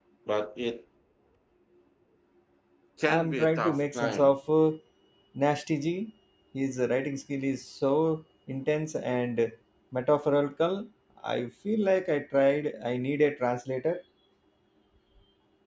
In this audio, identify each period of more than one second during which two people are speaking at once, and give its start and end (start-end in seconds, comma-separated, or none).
3.0-4.3